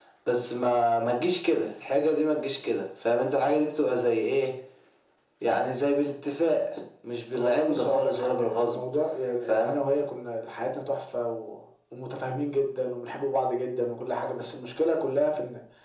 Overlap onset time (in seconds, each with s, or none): 7.3 s